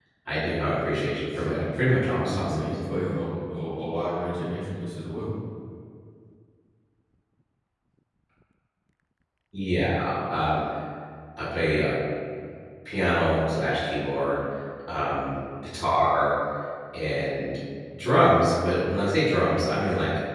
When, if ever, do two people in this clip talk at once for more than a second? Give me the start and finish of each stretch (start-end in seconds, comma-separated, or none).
1.4-2.9